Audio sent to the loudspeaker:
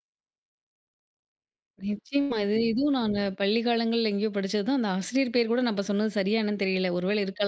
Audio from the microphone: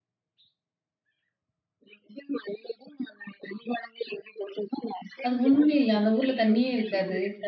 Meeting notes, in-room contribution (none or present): present